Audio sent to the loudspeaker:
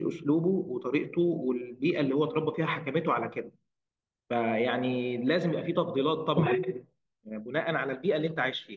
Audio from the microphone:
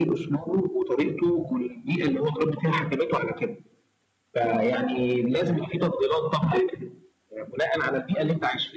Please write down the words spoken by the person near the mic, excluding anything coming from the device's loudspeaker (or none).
none